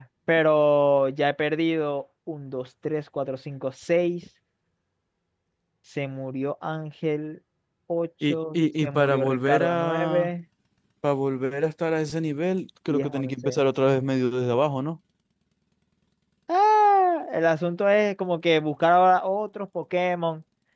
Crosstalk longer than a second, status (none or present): present